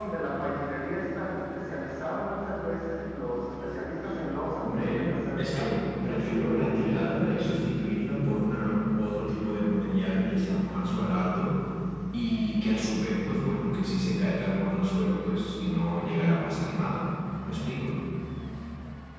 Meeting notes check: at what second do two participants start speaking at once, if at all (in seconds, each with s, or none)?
4.6 s